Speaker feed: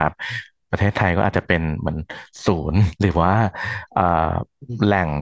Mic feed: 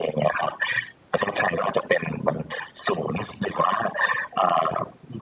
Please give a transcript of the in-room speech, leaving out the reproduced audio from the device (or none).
none